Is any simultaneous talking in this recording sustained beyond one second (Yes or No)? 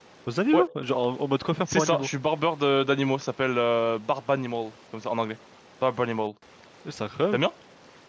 No